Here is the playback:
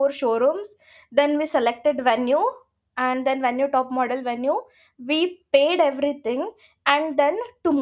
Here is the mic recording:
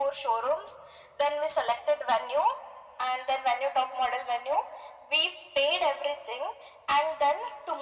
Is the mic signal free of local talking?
Yes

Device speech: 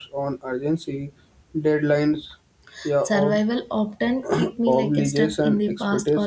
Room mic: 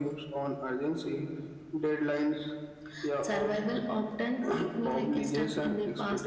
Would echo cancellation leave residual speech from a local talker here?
No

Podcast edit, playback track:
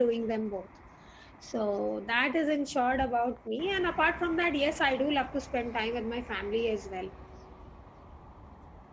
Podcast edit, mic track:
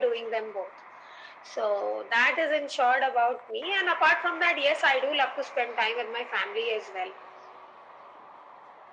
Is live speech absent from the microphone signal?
Yes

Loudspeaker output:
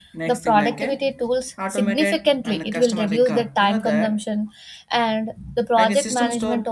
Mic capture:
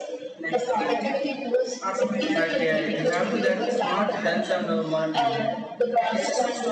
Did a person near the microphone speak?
Yes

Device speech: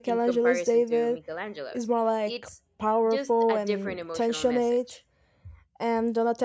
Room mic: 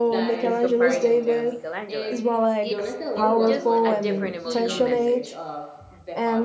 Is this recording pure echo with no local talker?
No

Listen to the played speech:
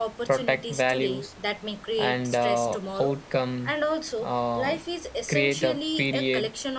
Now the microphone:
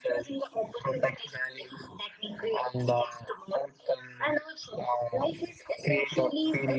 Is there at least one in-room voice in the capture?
No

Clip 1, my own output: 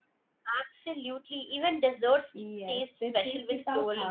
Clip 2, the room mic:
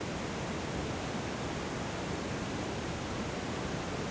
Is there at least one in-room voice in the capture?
No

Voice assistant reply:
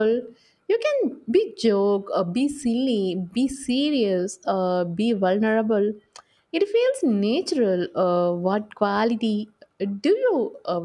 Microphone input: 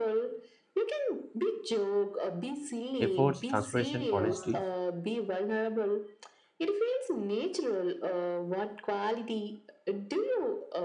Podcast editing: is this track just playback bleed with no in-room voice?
No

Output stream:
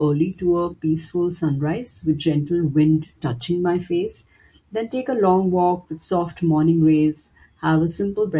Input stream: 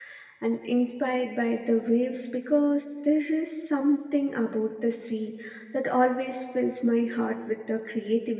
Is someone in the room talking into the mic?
Yes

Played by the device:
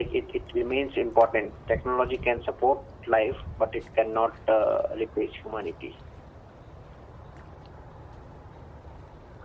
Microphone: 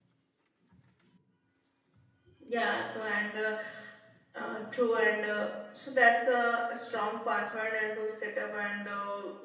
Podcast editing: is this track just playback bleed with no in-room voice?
No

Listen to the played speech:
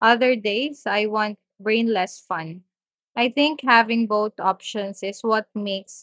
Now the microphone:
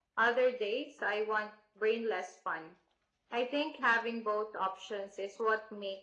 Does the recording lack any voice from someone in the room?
Yes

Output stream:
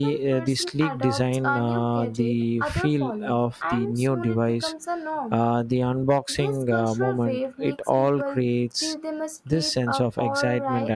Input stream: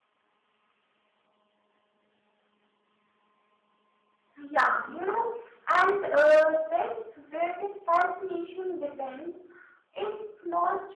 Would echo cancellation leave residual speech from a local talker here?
Yes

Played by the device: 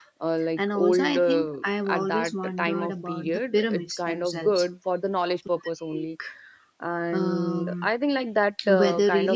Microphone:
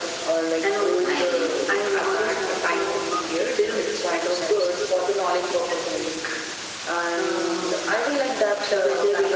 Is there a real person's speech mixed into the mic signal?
No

